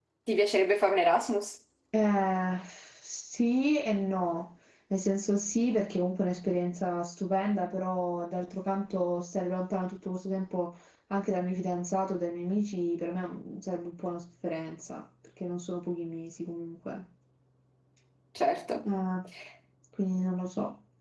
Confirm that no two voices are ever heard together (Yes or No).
Yes